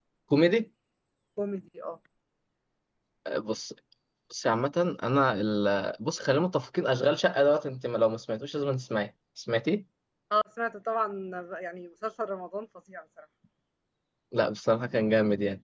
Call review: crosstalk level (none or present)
none